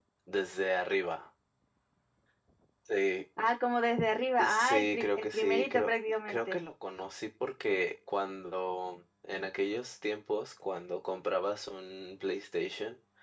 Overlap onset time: 4.4 s

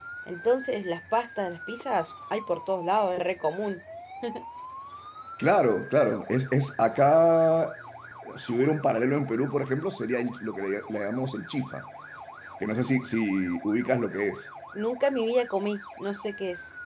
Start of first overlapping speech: none

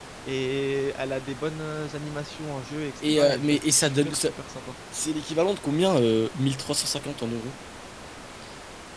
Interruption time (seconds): 3.0 s

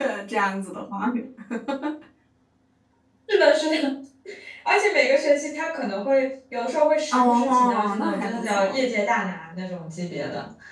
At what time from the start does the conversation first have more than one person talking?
7.1 s

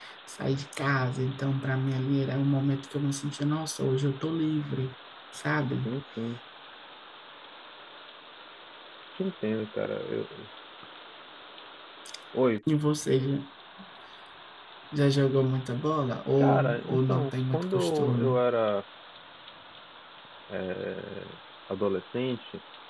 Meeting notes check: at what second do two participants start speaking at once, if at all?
16.4 s

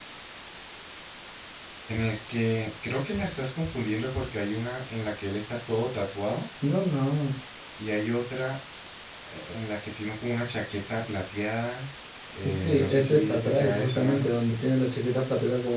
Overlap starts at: 12.4 s

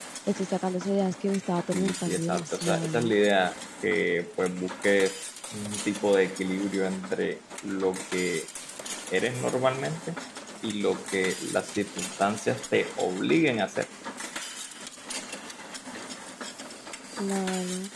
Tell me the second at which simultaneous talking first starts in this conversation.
1.7 s

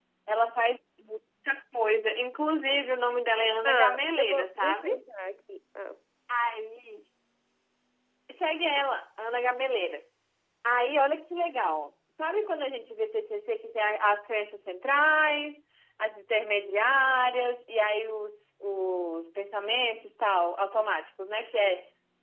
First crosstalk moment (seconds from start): 3.6 s

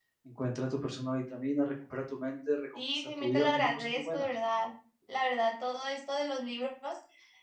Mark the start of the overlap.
2.8 s

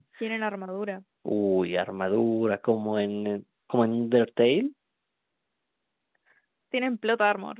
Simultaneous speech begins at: none

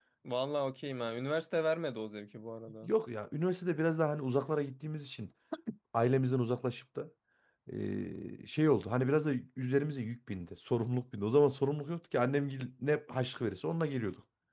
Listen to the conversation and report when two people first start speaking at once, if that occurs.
none

